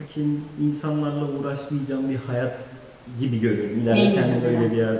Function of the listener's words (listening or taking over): listening